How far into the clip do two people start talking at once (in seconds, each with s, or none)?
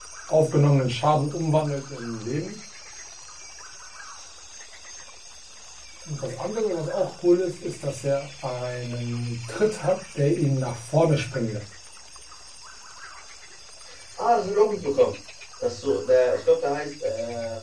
none